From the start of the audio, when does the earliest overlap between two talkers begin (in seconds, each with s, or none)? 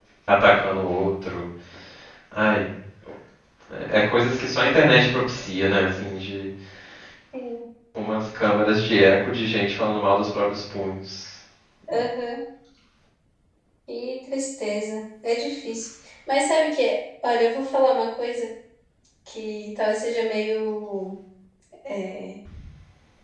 none